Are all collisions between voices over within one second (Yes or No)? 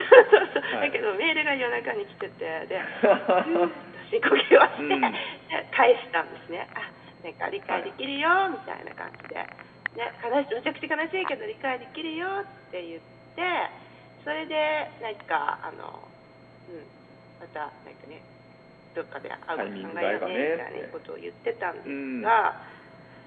No